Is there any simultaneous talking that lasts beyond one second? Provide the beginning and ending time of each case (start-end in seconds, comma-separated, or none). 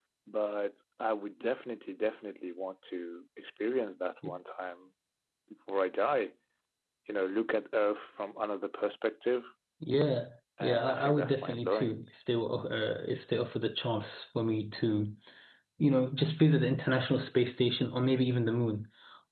10.6-12.0